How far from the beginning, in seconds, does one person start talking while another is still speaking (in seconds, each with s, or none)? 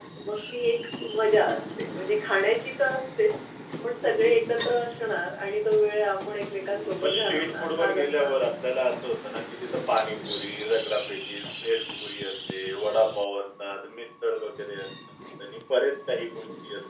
7.0 s